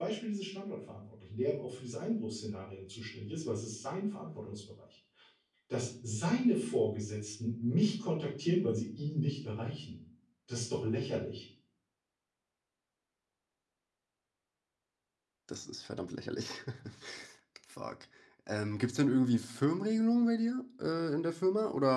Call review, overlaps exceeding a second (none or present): none